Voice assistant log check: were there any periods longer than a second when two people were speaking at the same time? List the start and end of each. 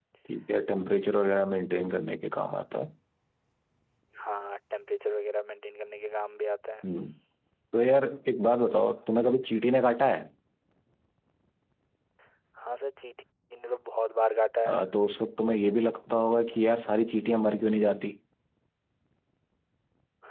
none

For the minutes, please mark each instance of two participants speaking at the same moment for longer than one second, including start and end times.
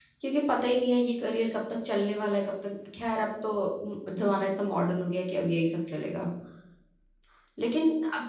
none

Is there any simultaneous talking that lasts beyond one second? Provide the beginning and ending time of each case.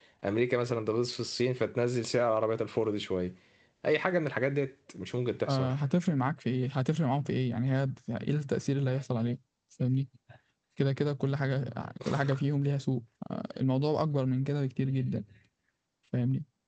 none

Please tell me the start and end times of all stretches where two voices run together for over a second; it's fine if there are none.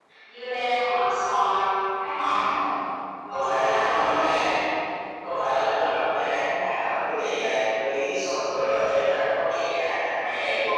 3.3-4.6

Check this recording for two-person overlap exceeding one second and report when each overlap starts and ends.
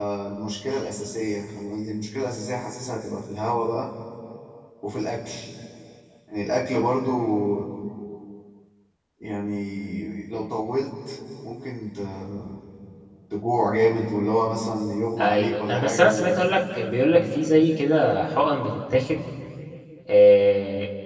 15.2-16.4

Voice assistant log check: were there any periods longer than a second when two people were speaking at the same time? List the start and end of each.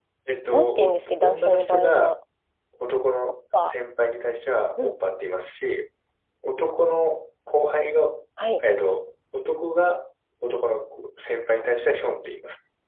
0.5-2.1

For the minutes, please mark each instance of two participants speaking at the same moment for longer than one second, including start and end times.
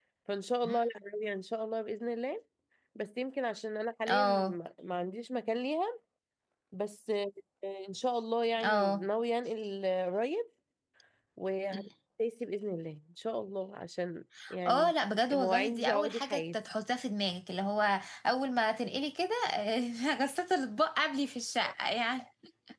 15.3-16.6

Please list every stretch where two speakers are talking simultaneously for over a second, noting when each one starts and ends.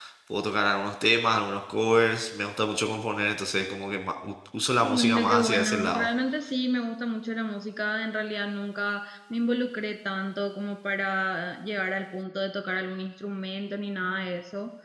4.8-6.1

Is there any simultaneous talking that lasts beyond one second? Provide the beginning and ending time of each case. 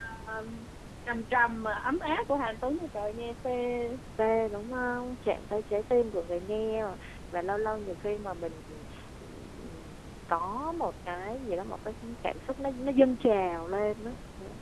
none

